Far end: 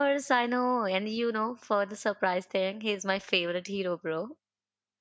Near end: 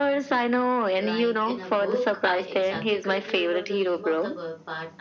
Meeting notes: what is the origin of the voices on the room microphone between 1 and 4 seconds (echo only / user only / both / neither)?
both